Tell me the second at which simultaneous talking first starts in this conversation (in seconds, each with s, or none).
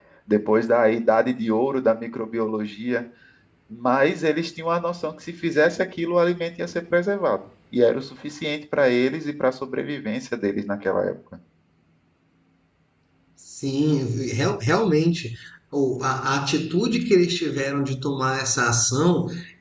none